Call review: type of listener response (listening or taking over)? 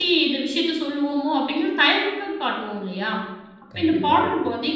listening